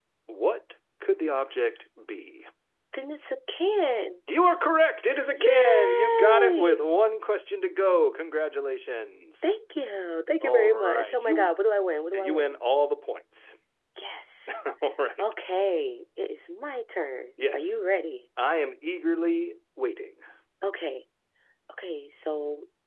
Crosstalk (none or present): present